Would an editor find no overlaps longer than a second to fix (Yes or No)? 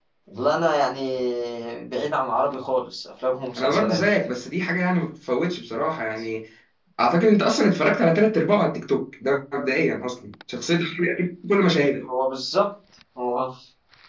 Yes